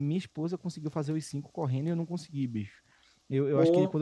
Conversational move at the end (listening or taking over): listening